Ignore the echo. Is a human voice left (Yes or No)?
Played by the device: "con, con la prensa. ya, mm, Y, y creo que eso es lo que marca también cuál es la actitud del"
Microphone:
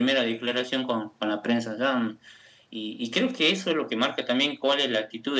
No